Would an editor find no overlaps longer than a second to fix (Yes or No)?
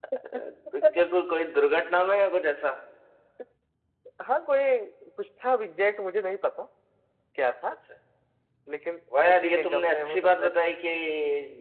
No